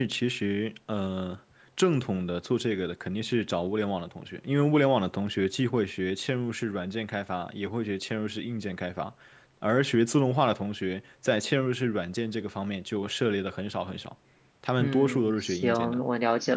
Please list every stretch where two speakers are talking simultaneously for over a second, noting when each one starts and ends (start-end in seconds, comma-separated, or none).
14.8-16.0